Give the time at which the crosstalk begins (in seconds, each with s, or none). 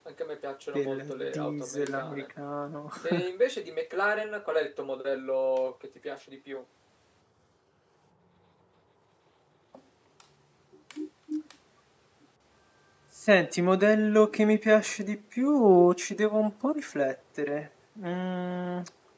0.7 s